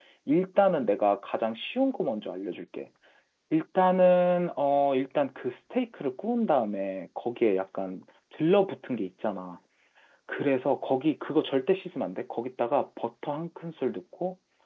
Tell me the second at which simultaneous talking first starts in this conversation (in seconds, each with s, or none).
none